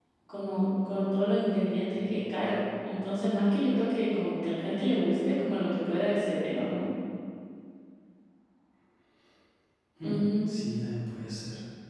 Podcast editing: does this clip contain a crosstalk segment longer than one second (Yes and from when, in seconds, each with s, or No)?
No